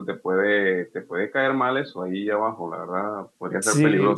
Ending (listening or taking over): listening